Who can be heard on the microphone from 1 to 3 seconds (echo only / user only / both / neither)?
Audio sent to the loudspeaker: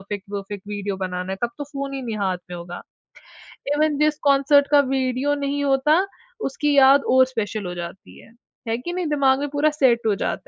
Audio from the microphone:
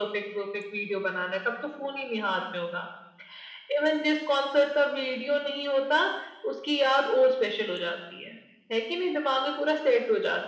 echo only